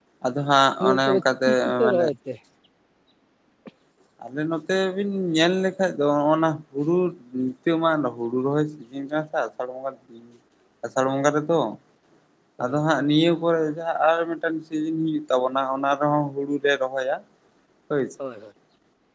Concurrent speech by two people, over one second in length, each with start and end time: 0.8-2.1

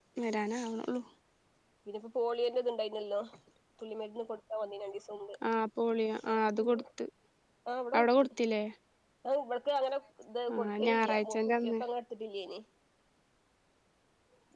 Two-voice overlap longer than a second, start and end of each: 10.5-11.7

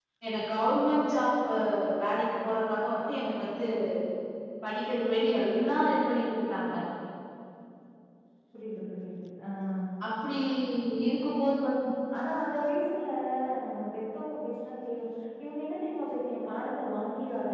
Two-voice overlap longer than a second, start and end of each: none

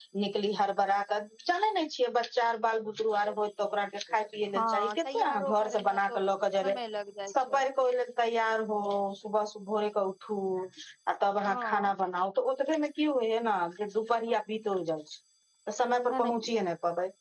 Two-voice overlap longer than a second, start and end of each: 4.5-6.2

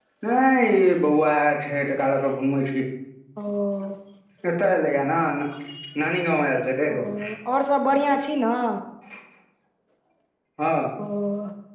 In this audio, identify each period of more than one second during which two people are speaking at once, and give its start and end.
none

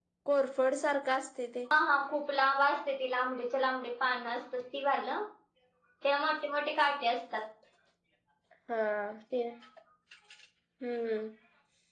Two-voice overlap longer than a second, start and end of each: none

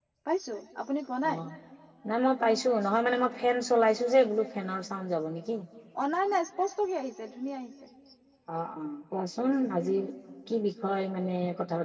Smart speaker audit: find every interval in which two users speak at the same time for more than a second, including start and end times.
none

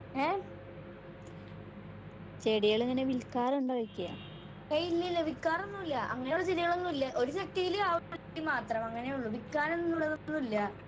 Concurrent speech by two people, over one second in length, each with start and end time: none

